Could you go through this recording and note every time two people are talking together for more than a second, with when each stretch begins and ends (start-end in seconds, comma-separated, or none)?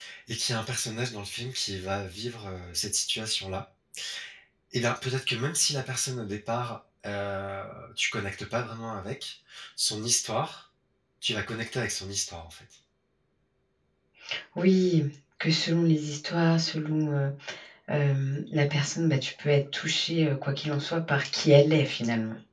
none